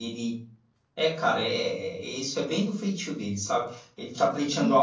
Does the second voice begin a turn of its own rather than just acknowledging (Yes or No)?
No